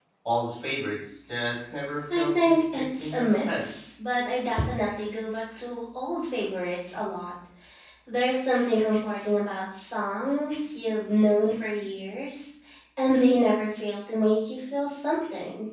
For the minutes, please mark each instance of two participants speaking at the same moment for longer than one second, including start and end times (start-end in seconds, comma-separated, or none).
2.2-3.6